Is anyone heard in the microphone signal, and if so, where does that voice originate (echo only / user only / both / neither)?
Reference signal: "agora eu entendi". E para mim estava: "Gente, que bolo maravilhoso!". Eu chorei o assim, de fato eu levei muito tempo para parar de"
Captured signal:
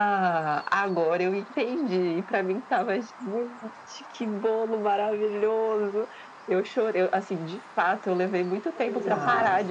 both